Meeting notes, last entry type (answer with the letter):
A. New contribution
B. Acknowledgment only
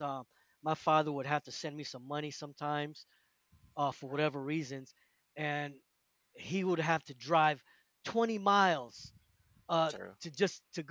B